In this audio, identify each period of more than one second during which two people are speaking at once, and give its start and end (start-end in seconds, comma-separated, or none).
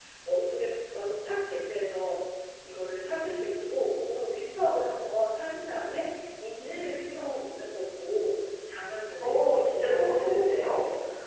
9.2-10.6